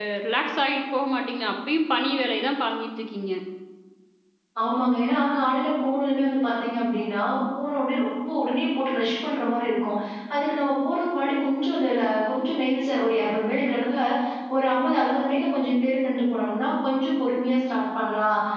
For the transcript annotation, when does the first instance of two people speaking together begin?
none

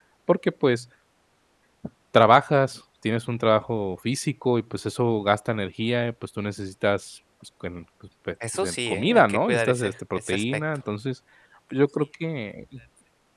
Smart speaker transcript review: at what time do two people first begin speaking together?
8.4 s

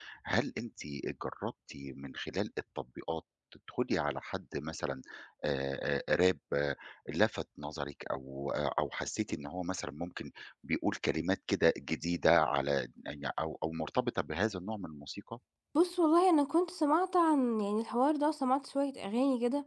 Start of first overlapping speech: none

